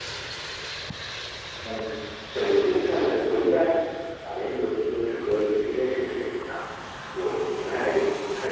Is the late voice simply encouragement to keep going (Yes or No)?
Yes